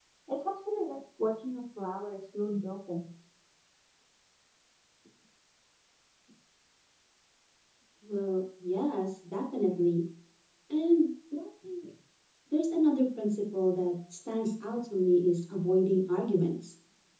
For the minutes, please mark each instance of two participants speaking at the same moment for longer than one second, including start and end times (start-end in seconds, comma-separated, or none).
none